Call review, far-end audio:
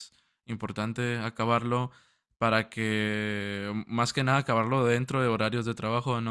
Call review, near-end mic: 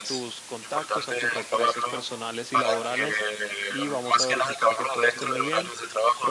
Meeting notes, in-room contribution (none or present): present